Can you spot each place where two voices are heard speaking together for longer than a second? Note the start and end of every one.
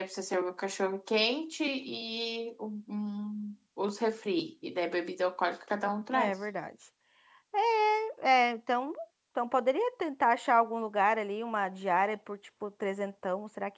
none

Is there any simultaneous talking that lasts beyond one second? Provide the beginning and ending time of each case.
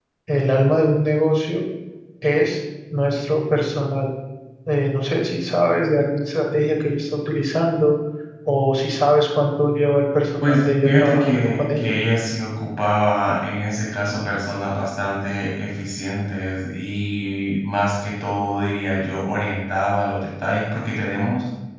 10.4-11.9

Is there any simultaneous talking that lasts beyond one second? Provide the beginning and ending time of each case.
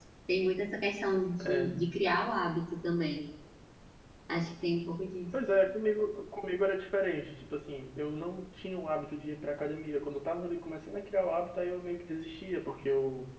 none

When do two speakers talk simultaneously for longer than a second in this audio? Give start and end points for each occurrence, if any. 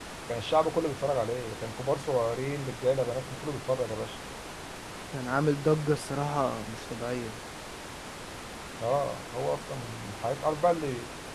none

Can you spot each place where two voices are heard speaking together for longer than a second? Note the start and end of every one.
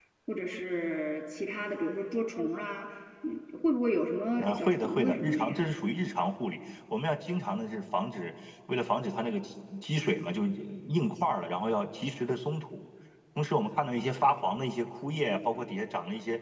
4.4-5.7

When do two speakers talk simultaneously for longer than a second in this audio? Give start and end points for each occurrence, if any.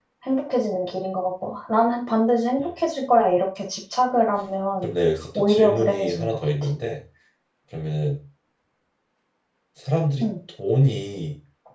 5.3-6.7

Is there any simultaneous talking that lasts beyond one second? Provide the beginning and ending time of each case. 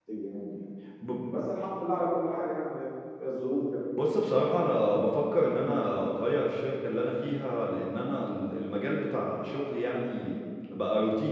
none

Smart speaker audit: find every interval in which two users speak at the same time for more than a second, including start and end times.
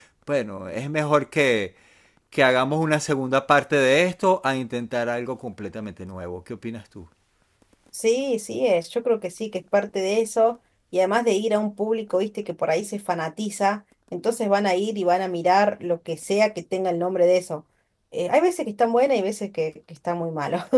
none

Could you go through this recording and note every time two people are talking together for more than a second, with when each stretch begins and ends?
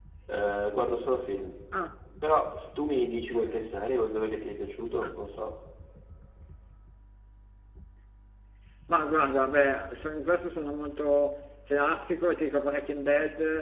none

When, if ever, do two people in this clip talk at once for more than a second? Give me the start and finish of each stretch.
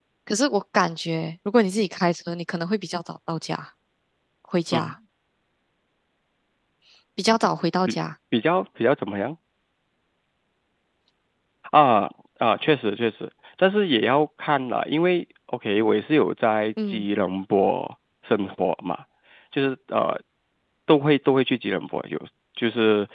none

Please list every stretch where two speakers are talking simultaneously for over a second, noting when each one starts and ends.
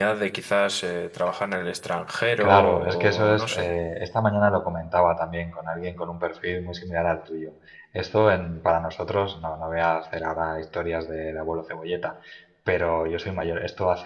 2.4-3.7

